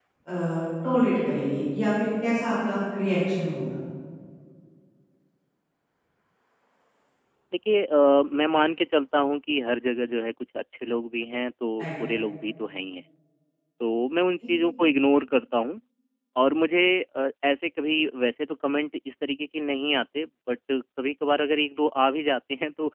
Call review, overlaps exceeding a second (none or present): none